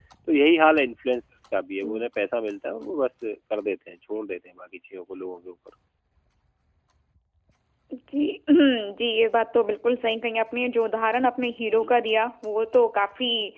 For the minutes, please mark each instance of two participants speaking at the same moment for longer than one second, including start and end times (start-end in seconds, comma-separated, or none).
none